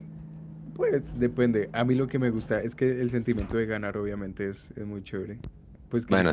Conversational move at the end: listening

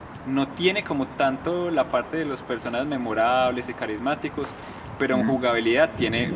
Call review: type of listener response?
listening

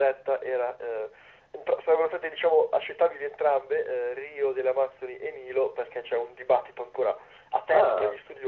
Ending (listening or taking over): listening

